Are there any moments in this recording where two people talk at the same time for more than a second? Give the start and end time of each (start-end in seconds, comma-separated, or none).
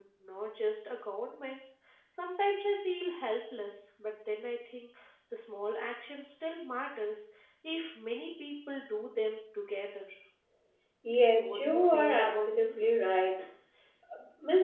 11.3-12.9